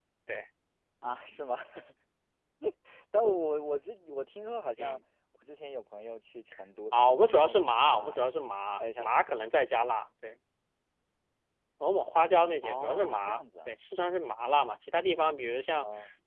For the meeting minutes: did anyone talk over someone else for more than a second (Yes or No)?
Yes